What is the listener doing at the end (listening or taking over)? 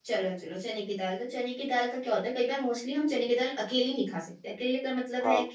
listening